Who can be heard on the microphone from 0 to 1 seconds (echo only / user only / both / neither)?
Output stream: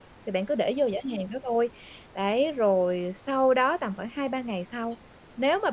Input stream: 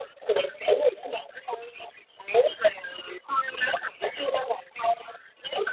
echo only